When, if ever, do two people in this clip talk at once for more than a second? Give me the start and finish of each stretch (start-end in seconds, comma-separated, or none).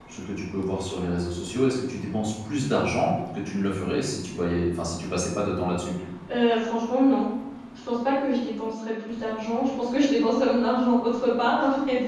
none